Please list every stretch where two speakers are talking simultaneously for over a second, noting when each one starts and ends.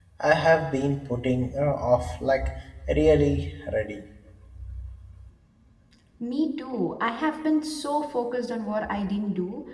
none

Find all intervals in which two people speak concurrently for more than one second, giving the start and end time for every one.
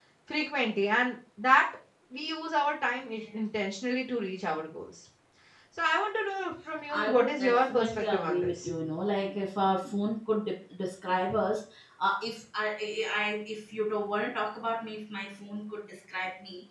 6.9-8.7

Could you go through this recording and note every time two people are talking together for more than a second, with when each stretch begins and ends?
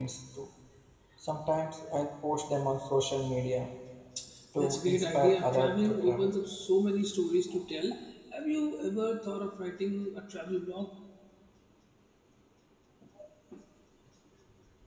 4.6-6.3

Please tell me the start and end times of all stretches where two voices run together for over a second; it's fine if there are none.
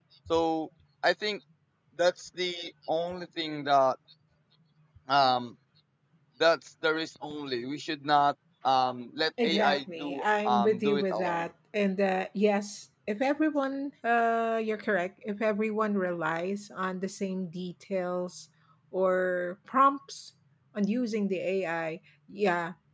9.4-11.4

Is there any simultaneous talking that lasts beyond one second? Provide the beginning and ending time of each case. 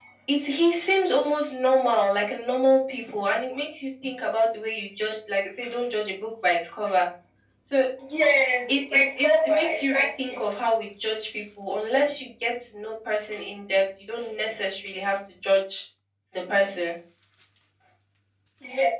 8.7-10.4

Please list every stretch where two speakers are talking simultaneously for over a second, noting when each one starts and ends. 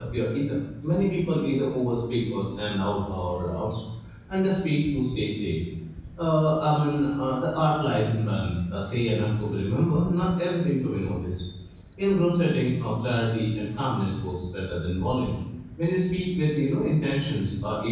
none

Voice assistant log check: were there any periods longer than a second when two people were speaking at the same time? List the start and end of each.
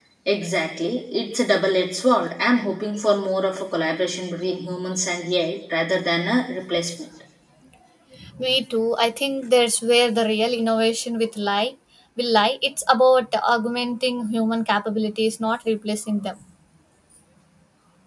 none

